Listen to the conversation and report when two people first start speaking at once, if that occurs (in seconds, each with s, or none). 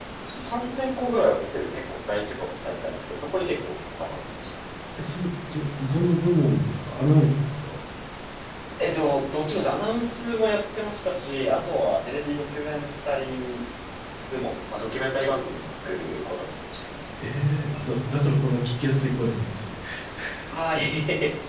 none